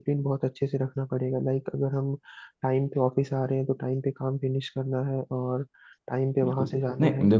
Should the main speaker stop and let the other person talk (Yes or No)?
Yes